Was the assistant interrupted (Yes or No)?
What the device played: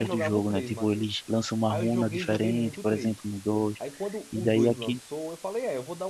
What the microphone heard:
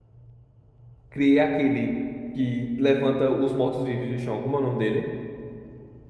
Yes